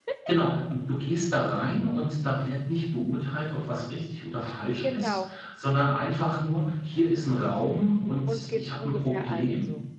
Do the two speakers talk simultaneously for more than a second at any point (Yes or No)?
Yes